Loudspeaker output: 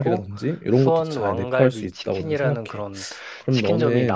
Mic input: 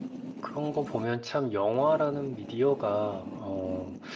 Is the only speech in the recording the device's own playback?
No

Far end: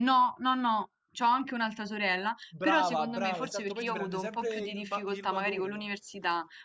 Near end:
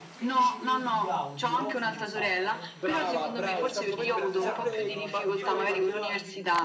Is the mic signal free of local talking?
No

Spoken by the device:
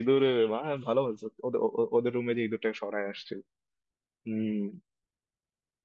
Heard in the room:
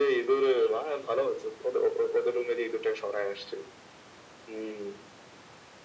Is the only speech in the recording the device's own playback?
Yes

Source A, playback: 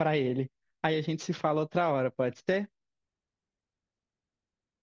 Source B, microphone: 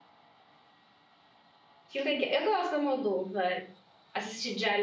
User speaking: Yes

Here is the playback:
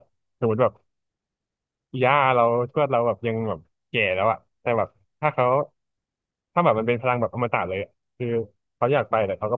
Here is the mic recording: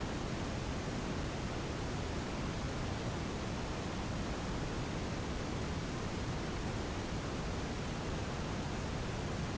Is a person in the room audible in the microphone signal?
No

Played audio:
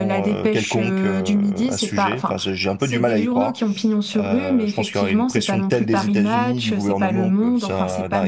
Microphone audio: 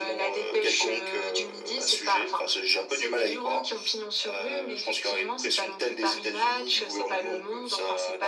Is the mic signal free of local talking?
Yes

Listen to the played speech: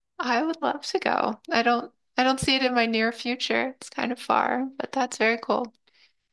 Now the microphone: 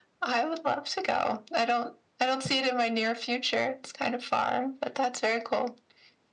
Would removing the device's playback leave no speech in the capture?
Yes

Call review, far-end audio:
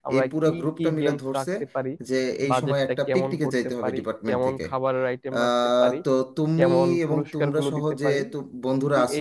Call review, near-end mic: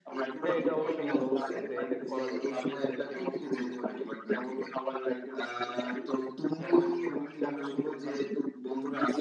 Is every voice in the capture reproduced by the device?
No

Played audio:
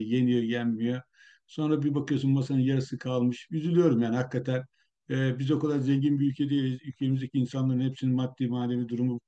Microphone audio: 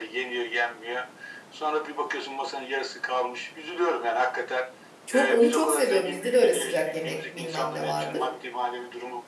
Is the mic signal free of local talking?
No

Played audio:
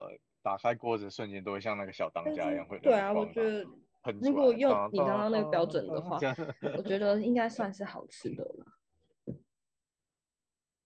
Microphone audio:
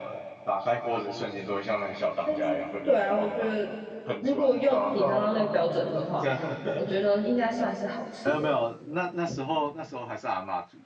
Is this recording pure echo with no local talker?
No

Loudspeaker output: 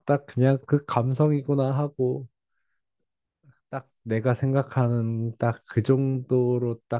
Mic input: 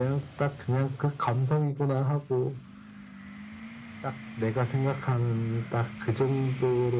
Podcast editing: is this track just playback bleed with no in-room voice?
Yes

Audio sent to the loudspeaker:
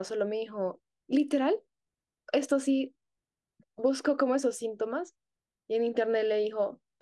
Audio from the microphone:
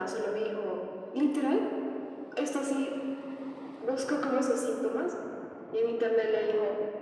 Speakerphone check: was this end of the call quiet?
Yes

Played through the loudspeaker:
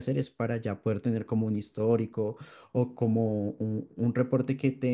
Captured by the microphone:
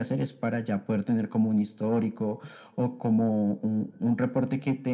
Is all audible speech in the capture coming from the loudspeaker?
Yes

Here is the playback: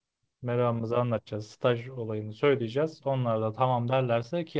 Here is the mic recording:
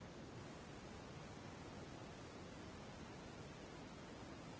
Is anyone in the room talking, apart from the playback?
No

